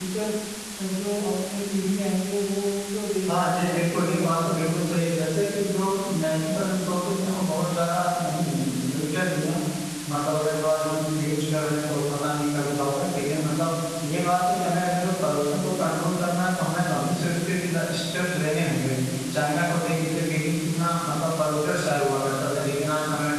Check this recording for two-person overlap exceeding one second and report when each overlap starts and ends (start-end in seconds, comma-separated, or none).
3.4-4.8